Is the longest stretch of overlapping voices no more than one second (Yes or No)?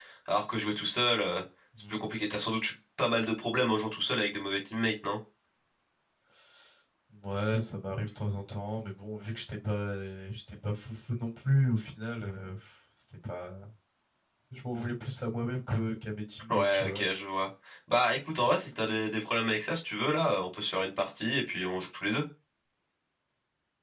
Yes